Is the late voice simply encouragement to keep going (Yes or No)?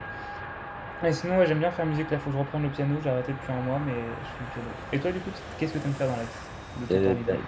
No